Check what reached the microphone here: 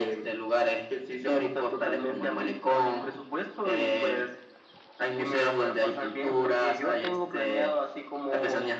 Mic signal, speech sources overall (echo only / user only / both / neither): echo only